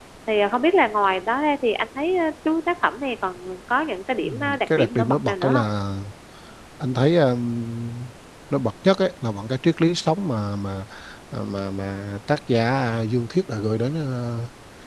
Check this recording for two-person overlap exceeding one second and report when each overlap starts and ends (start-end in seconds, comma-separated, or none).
4.3-5.6